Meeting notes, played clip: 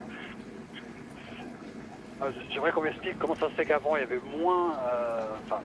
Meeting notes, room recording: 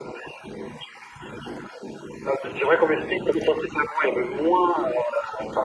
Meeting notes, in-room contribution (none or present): none